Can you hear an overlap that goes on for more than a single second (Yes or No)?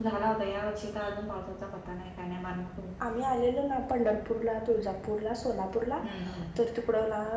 No